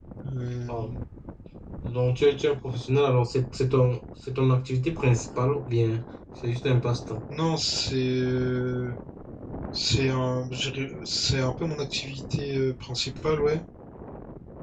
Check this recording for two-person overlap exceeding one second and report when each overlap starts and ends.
none

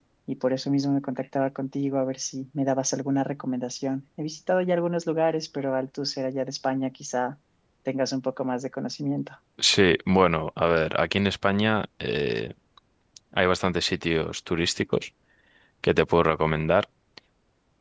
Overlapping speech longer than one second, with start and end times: none

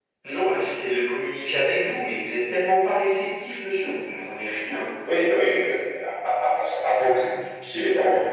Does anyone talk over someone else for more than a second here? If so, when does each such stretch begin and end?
none

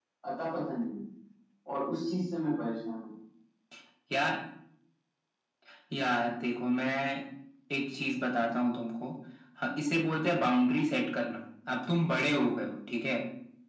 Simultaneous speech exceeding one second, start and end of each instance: none

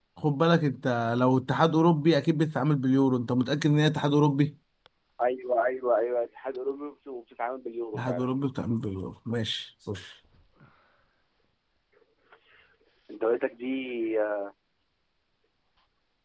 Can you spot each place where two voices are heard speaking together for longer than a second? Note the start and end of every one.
none

